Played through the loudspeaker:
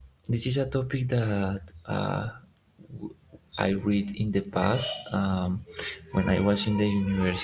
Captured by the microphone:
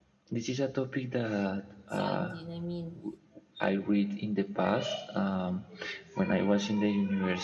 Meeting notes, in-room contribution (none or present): present